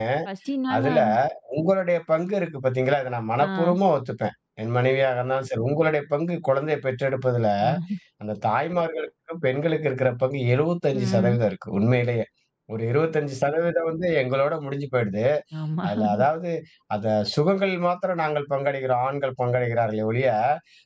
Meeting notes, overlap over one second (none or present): none